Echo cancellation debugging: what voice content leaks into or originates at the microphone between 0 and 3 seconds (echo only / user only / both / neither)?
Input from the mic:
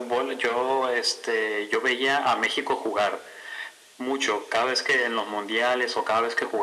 echo only